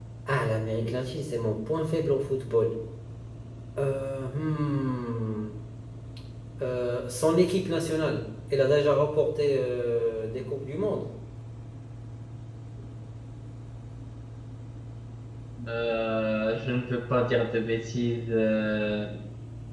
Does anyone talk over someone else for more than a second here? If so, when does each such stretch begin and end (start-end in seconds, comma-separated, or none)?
none